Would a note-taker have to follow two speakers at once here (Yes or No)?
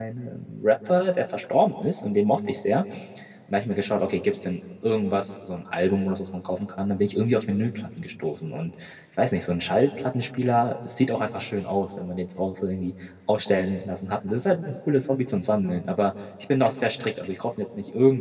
No